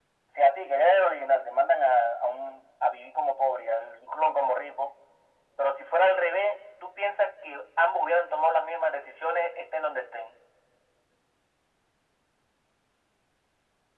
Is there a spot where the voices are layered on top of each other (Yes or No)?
No